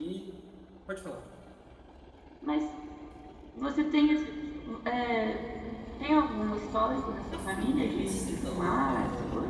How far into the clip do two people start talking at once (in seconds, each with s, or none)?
7.3 s